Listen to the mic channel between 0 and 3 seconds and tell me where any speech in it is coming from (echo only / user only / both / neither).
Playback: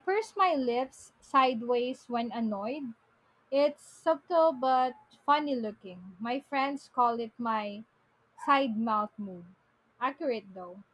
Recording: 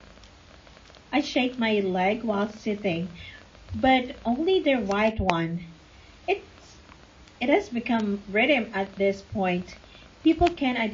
user only